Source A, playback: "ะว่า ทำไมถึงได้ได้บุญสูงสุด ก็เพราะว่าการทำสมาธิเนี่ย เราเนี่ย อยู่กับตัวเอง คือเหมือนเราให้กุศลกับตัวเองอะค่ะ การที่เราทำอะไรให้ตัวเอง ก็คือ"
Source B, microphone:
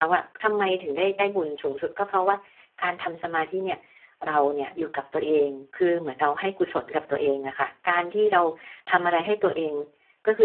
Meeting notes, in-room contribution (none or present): none